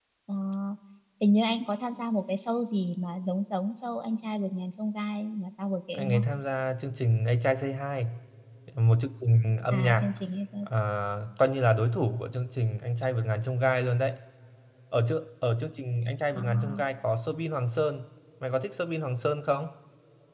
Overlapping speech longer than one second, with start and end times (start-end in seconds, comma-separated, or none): none